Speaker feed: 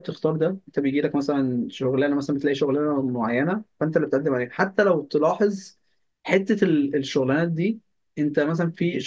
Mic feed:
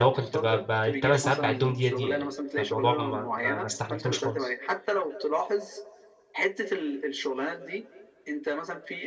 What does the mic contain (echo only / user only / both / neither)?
both